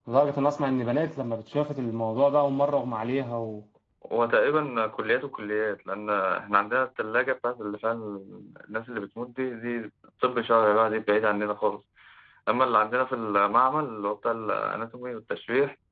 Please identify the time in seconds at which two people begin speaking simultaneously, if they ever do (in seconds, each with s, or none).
none